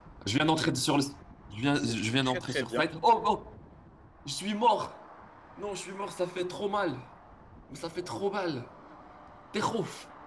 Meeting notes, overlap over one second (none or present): present